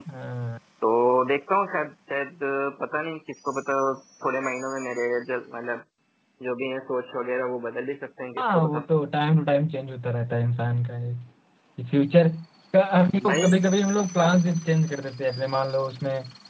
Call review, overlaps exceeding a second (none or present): none